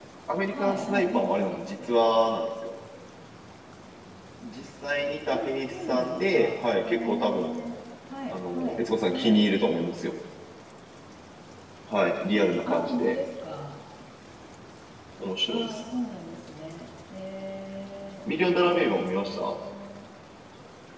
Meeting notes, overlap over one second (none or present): present